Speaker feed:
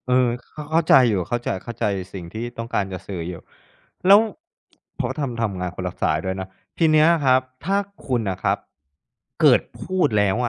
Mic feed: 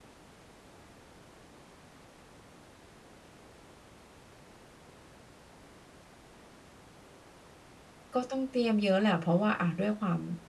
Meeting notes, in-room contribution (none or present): present